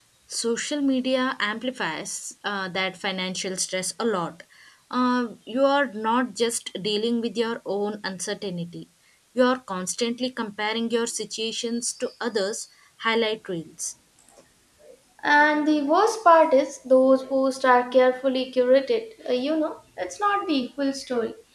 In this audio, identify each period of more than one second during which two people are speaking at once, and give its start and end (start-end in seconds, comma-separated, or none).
none